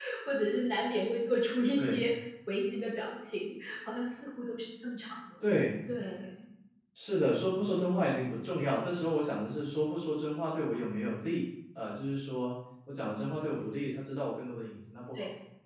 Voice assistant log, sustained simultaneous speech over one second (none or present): none